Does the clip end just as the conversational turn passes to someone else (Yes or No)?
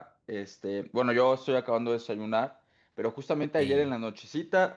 No